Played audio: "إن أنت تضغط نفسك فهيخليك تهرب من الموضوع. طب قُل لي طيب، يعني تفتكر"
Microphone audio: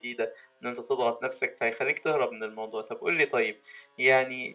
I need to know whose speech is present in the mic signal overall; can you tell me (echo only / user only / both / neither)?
echo only